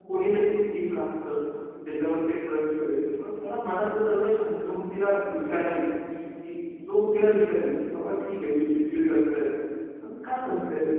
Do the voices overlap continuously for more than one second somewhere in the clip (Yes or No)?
No